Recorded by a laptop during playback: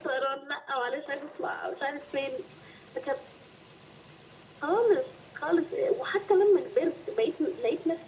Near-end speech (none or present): none